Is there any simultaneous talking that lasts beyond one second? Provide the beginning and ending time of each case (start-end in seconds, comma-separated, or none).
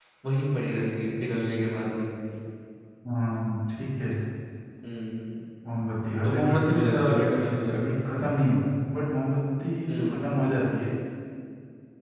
6.2-7.8